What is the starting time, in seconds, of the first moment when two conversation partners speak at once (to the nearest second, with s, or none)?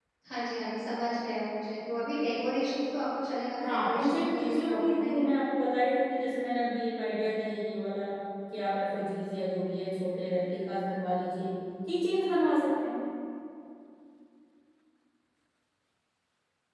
4 s